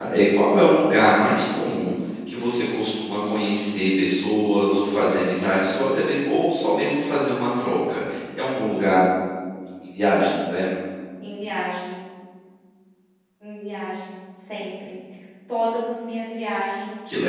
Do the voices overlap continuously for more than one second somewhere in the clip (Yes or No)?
No